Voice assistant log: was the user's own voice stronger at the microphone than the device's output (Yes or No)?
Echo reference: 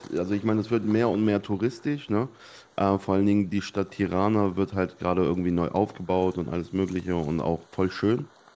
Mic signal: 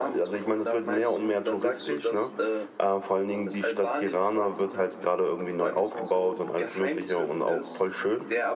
No